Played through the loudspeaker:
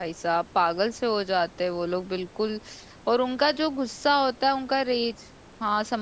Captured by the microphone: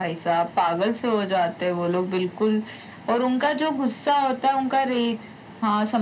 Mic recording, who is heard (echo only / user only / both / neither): echo only